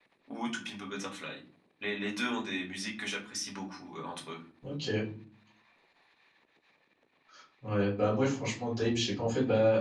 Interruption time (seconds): none

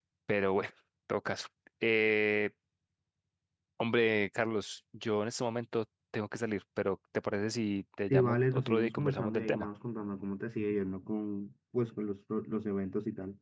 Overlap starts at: 8.1 s

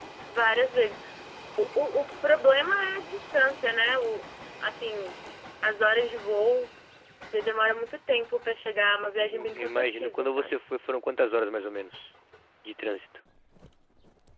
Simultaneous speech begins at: 9.2 s

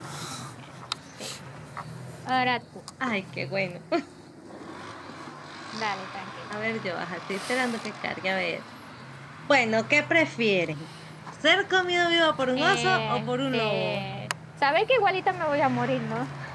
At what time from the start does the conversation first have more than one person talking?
12.5 s

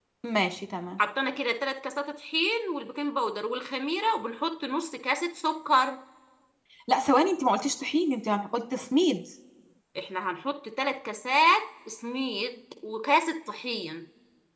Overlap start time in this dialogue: none

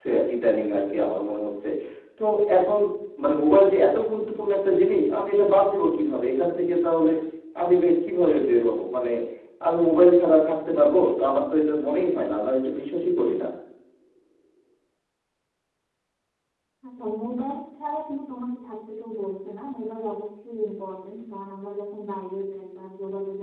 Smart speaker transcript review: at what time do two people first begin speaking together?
none

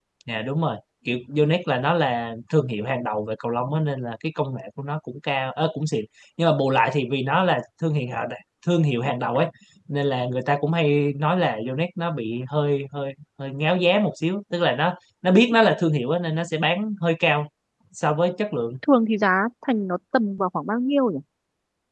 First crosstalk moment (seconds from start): none

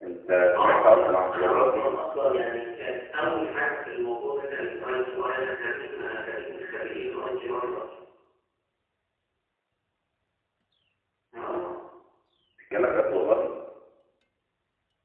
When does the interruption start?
0.5 s

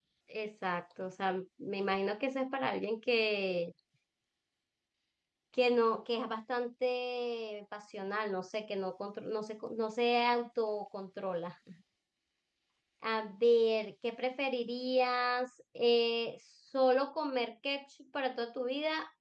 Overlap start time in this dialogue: none

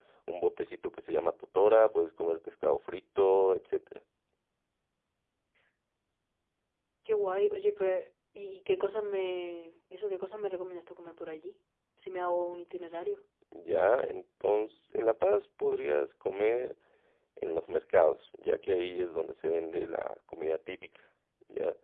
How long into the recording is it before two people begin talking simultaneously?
none

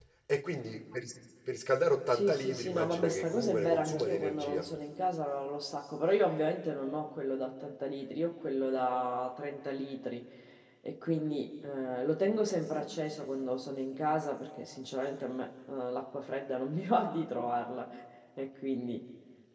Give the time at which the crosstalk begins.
2.1 s

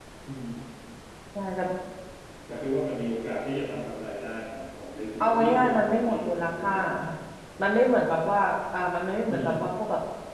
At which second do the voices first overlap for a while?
5.2 s

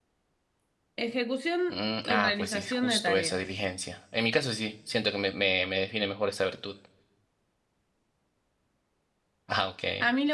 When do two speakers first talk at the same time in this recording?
2.0 s

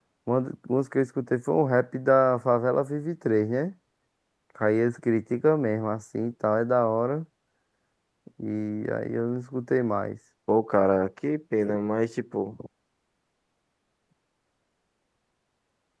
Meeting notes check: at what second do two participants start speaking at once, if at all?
none

